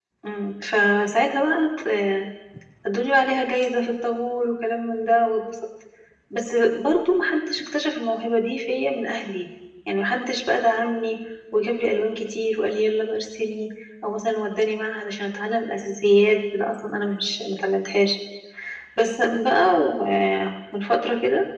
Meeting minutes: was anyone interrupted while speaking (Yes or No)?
No